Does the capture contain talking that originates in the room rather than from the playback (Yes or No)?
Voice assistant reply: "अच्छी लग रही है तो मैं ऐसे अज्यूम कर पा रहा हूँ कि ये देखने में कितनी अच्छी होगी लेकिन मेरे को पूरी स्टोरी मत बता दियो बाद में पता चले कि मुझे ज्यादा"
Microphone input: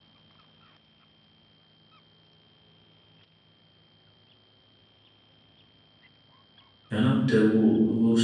Yes